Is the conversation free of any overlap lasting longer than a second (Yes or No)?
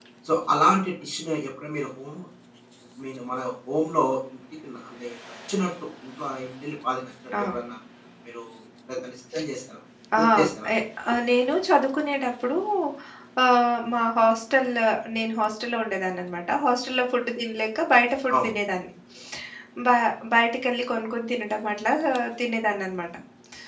Yes